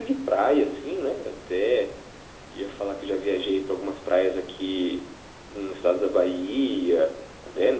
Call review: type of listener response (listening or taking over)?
listening